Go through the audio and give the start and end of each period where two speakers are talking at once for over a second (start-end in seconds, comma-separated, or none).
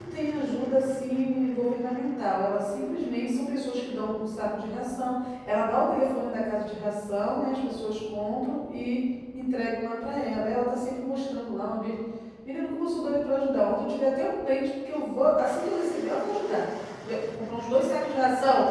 none